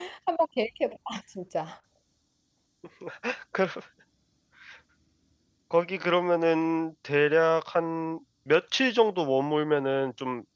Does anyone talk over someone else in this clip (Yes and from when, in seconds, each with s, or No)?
No